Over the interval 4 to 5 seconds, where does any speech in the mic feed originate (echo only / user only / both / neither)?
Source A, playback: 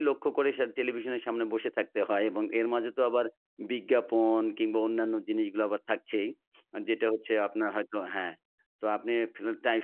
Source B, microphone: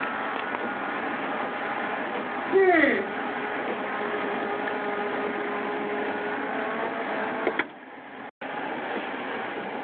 neither